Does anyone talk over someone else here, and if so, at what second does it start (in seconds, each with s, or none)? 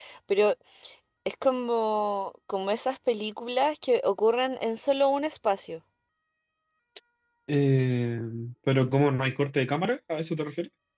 none